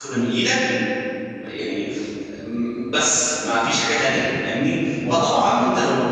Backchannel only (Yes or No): Yes